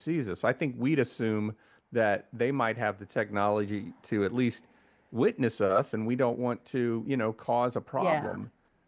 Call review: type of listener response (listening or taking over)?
listening